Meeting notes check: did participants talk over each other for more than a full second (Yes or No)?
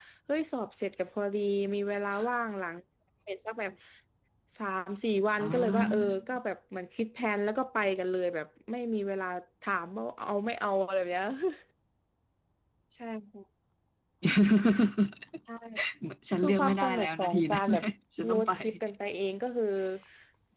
Yes